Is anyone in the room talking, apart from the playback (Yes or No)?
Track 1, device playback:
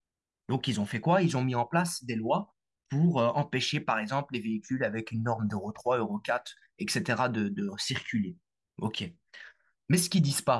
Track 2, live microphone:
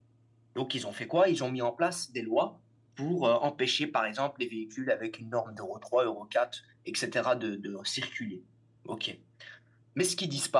No